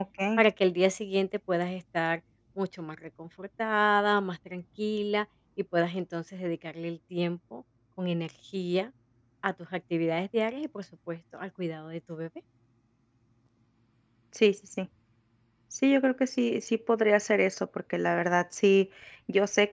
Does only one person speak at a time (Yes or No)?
Yes